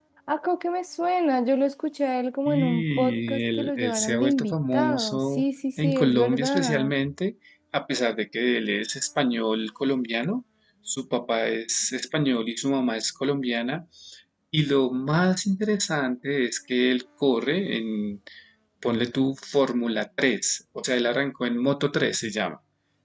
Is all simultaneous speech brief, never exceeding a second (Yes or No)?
No